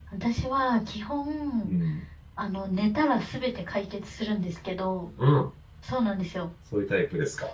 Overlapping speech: No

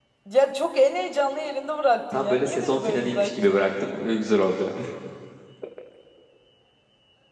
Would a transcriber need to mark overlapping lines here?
Yes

